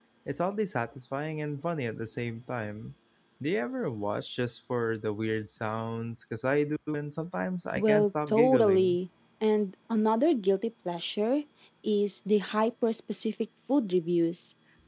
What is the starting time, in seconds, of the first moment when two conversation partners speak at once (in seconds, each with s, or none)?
7.8 s